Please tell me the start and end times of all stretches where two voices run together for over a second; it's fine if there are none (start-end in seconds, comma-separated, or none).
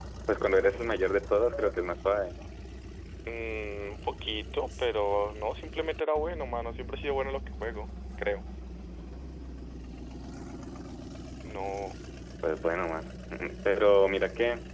none